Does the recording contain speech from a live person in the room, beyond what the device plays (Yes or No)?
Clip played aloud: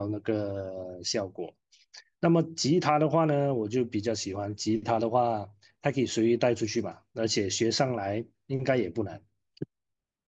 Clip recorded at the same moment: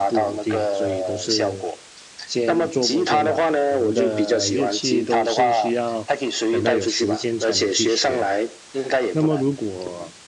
Yes